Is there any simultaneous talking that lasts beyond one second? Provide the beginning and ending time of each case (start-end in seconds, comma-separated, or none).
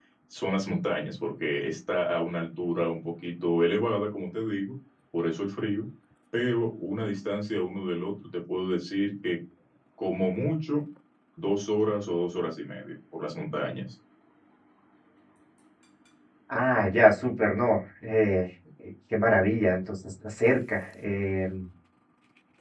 none